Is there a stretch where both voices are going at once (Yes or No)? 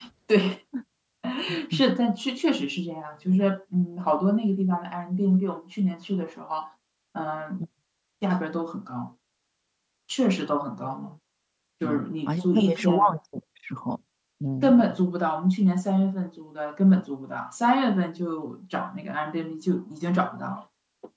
Yes